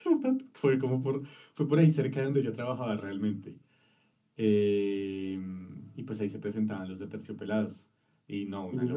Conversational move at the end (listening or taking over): taking over